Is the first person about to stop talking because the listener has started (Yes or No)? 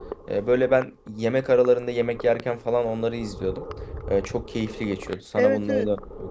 Yes